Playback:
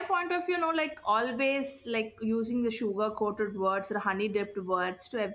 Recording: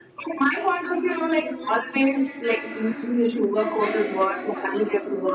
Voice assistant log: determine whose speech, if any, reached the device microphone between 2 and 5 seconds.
both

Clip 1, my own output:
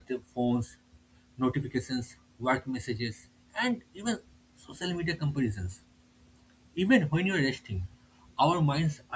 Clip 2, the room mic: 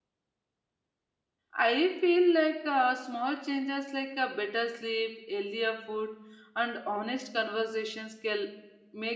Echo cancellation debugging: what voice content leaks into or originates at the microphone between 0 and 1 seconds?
neither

